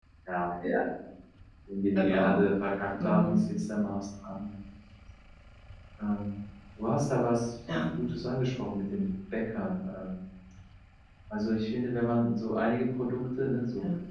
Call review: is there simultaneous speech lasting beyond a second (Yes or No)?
No